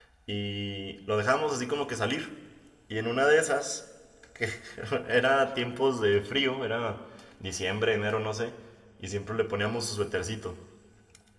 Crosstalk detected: No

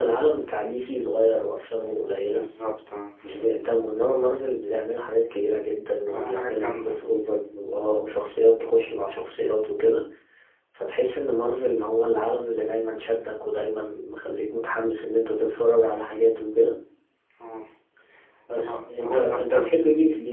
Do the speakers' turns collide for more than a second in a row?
Yes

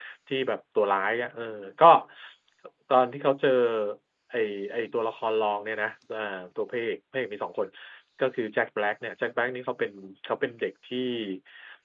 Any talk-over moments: No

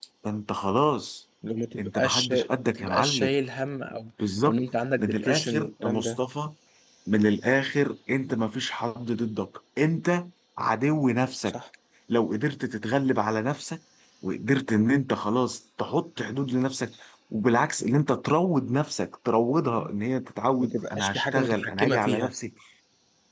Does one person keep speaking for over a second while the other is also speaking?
Yes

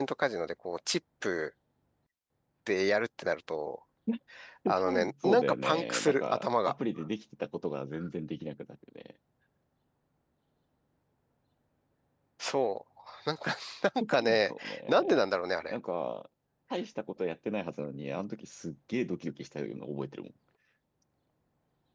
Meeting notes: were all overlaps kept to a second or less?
No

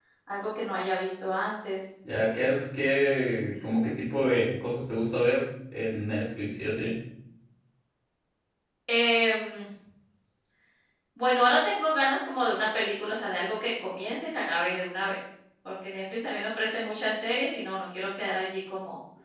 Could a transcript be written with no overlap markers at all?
Yes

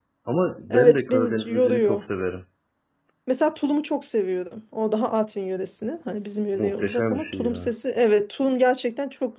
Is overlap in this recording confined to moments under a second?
No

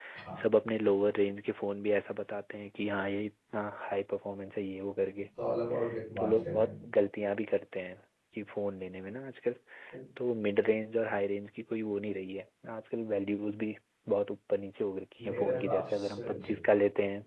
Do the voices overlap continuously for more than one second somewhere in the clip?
Yes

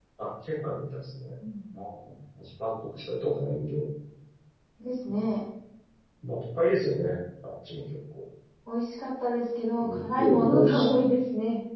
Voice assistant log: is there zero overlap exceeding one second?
No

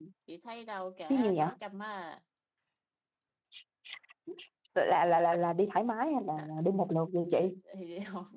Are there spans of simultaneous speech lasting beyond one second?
No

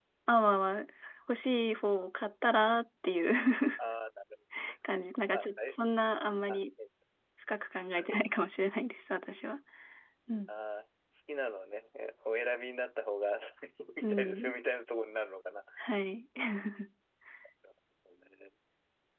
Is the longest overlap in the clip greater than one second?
No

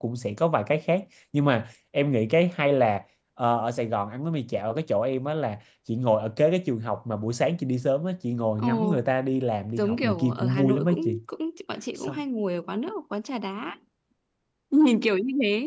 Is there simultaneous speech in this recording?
Yes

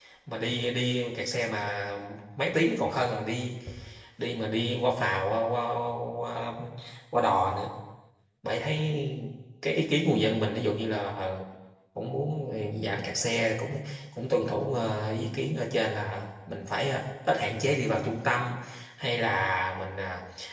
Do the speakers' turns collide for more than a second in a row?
No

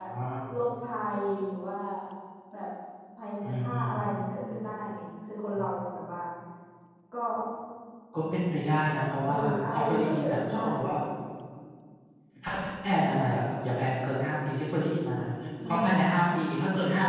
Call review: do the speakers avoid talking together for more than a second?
No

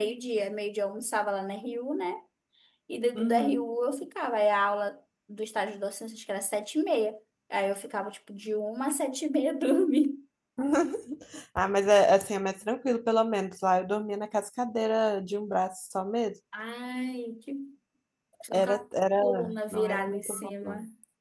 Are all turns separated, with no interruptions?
No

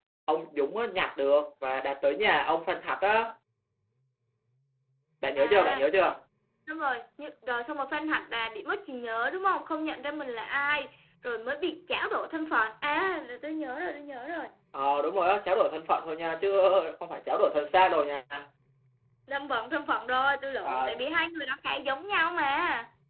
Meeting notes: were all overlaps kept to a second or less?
Yes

